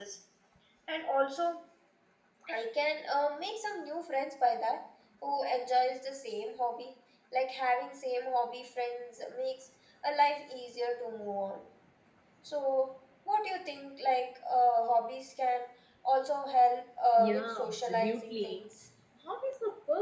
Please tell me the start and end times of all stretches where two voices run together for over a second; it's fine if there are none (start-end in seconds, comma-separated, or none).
17.2-18.6